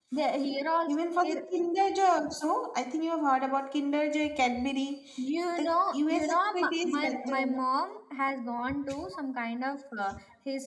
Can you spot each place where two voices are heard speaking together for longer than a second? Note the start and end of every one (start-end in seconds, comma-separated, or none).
5.6-7.6